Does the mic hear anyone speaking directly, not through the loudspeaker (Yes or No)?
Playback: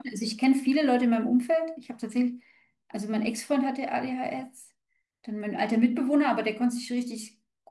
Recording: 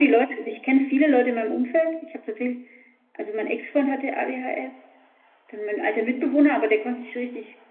No